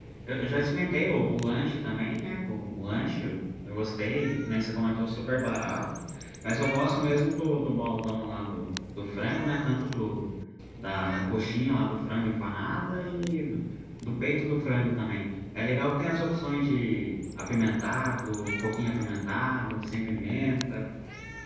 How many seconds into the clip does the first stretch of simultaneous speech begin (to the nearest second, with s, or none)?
none